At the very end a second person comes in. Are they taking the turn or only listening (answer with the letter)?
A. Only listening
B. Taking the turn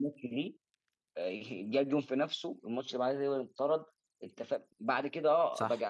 A